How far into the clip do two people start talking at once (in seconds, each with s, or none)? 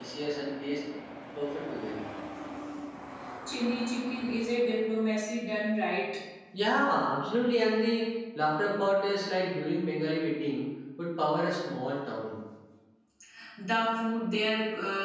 none